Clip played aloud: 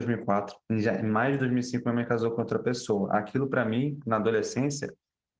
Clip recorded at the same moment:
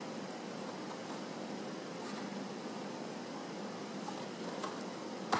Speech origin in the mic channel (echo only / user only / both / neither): neither